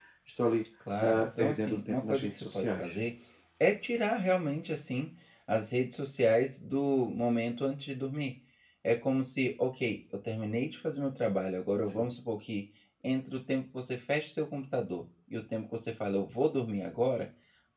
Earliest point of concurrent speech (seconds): 1.0 s

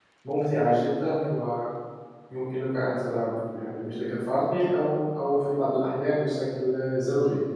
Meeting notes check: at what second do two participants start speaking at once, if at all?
none

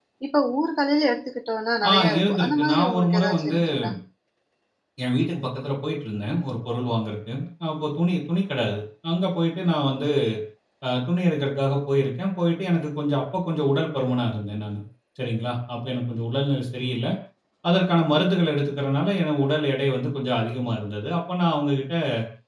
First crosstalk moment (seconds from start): 1.8 s

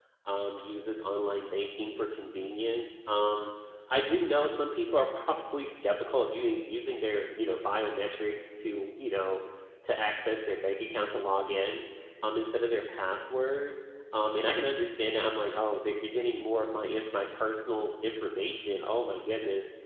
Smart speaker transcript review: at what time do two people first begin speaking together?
none

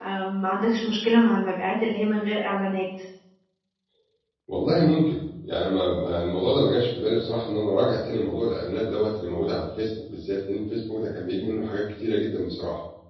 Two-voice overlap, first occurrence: none

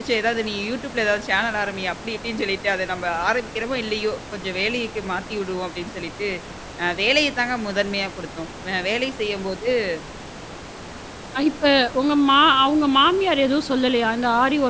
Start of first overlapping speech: none

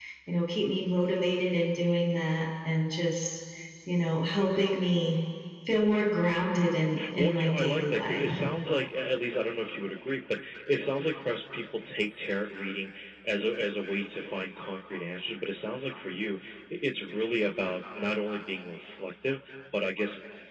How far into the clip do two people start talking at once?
7.0 s

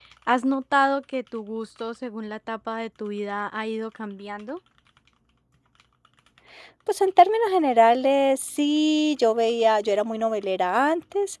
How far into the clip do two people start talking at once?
none

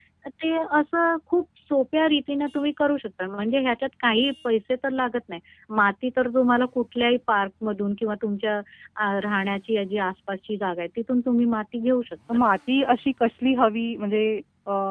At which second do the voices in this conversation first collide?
none

